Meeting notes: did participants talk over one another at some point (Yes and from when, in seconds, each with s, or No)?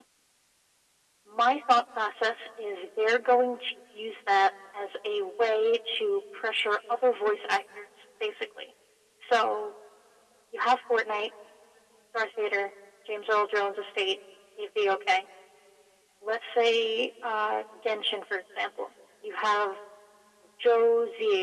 No